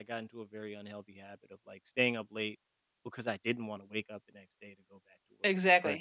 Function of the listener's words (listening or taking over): taking over